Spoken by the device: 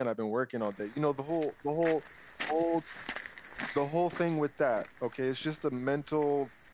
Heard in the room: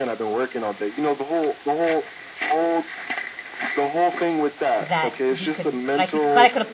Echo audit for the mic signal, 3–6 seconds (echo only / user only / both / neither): both